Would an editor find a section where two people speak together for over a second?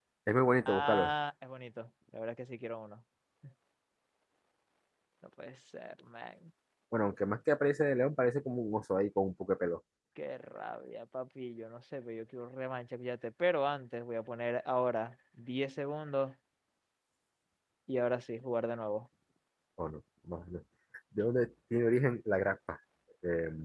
No

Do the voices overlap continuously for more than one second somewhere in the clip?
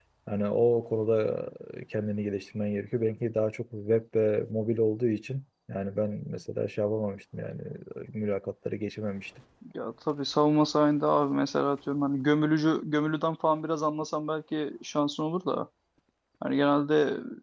No

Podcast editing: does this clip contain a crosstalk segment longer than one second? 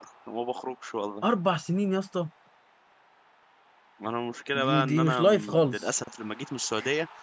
Yes, from 4.5 s

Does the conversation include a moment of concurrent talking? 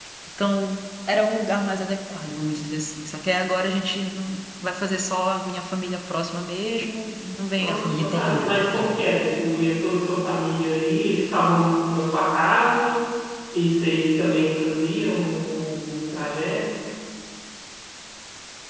Yes, from 7.6 s

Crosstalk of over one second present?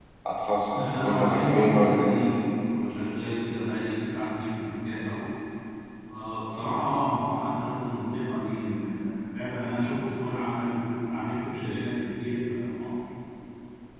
Yes, from 0.8 s

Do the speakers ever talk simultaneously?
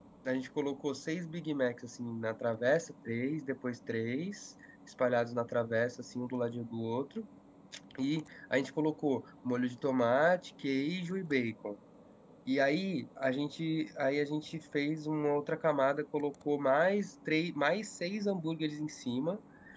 No

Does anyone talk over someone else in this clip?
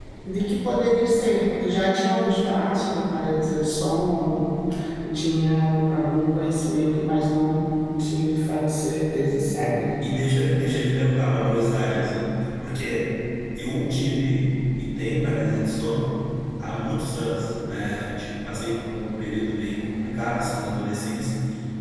No

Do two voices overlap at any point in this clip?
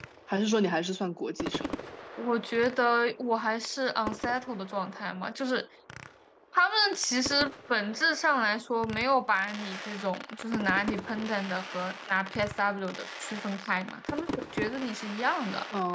No

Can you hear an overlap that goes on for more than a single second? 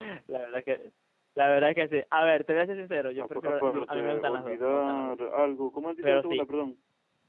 Yes, from 3.2 s

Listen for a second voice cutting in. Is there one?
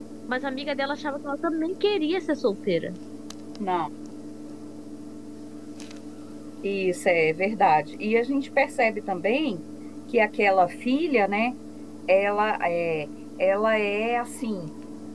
No

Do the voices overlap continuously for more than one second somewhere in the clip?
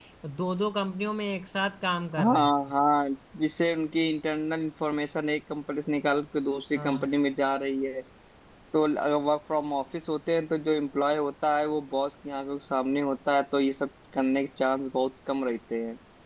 No

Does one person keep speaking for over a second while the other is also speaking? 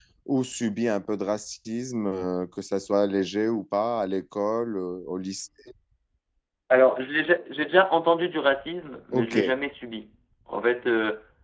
No

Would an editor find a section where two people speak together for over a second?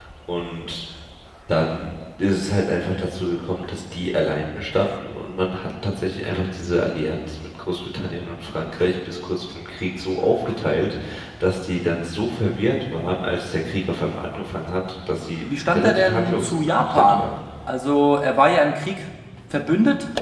Yes, from 15.5 s

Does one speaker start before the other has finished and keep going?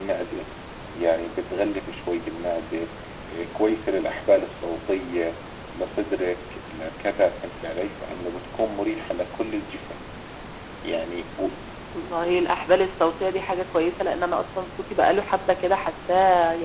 No

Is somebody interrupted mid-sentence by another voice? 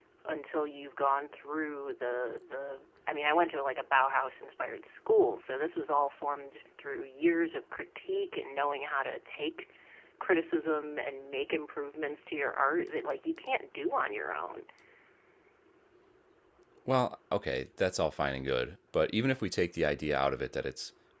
No

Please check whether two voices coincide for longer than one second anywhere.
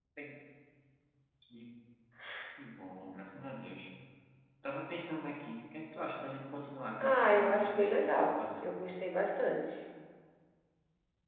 Yes, from 7.0 s

